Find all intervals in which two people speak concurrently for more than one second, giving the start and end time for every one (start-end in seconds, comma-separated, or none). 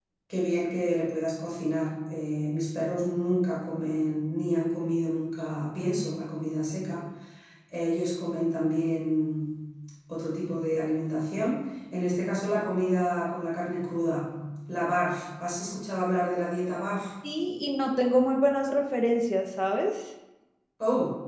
none